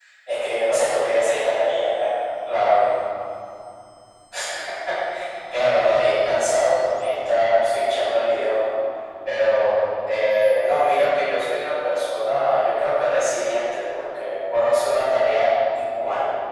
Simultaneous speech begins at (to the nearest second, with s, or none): none